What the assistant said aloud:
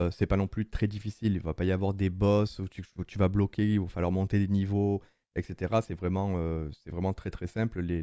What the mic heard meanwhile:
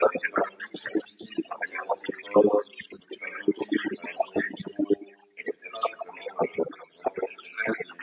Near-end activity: none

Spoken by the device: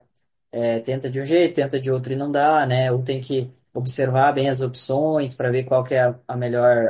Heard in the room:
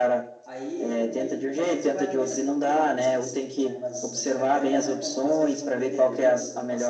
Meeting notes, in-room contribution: present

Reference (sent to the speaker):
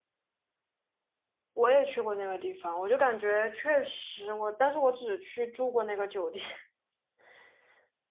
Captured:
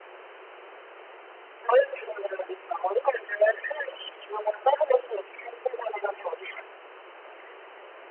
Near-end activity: none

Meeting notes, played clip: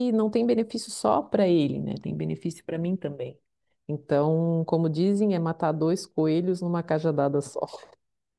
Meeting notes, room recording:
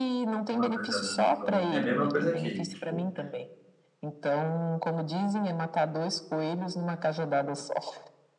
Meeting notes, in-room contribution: present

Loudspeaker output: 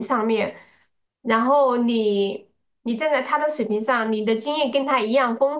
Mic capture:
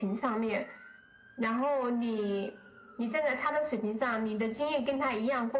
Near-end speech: none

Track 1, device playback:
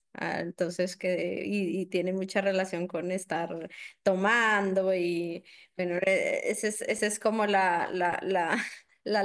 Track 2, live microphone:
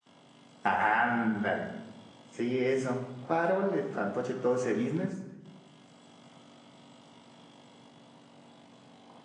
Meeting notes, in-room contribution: present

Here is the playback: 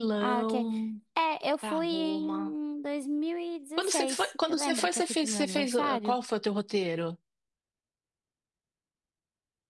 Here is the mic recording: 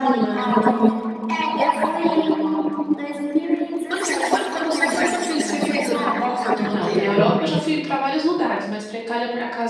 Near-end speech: present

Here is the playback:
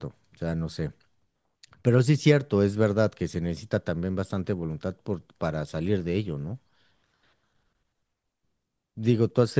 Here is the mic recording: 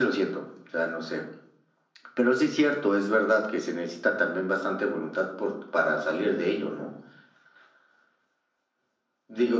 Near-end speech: none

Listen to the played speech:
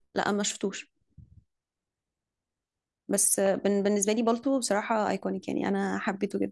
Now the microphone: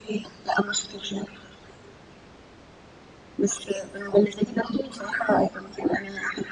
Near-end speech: none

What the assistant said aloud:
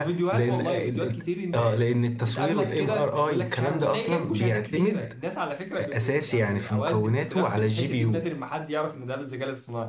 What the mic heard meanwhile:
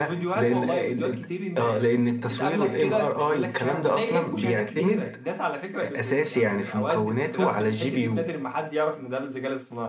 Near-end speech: none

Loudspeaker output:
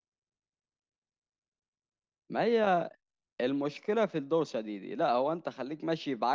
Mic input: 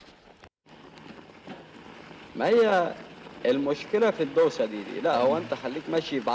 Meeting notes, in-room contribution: present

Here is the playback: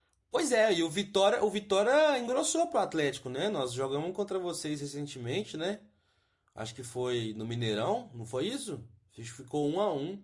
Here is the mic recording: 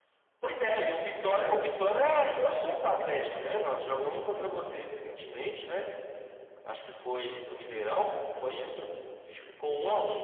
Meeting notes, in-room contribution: none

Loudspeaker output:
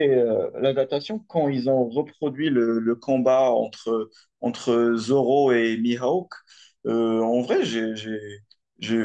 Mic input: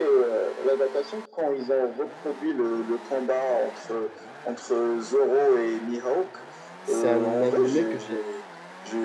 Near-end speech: present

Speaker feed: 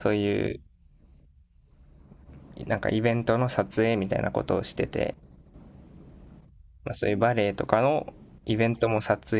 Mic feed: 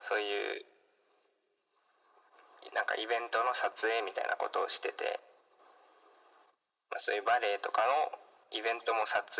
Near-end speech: none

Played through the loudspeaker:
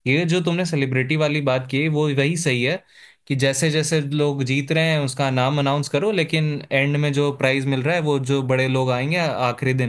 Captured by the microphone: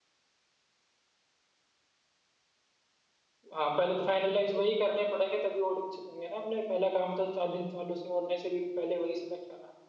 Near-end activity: present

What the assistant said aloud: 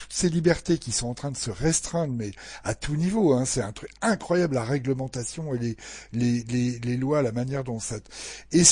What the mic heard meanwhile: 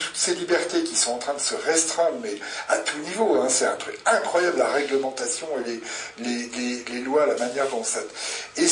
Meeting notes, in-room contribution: none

